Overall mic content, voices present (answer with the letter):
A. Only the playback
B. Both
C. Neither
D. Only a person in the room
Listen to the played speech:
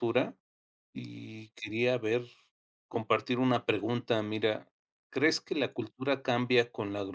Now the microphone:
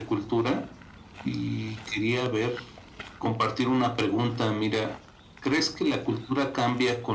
A